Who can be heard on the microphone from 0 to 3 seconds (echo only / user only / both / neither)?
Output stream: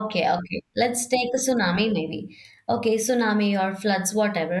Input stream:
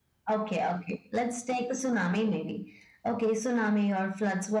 echo only